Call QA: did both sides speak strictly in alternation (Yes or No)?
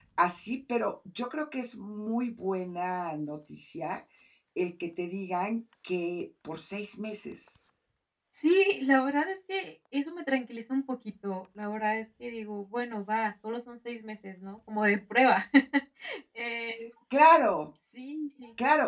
Yes